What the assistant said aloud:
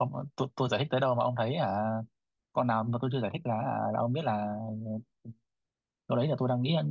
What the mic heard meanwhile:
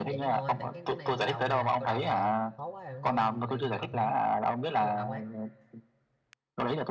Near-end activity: present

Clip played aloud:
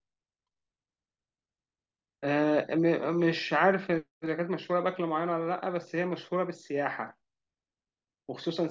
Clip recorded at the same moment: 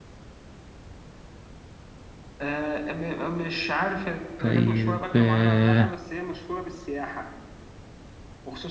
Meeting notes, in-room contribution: present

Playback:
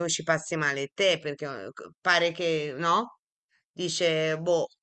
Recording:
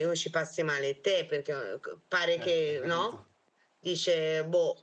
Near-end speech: present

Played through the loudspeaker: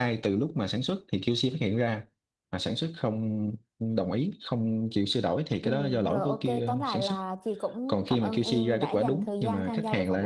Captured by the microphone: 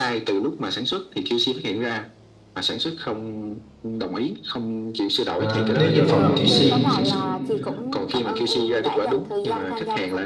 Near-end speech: present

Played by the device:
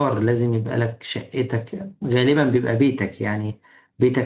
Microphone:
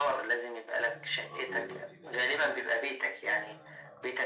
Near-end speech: present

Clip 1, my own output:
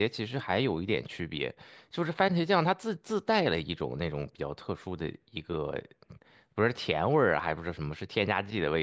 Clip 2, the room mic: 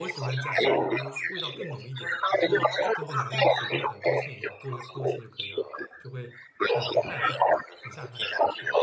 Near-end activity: present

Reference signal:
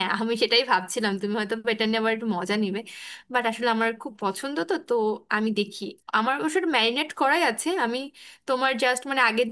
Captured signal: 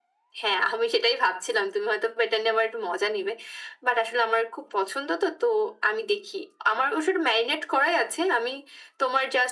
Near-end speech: none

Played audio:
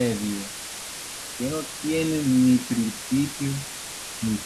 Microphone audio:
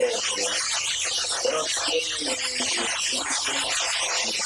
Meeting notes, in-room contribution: none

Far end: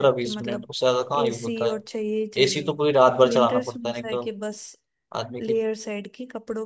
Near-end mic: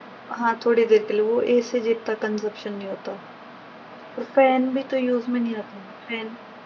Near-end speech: present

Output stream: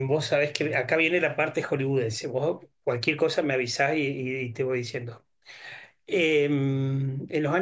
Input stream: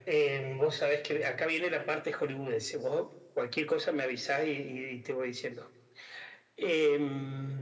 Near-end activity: none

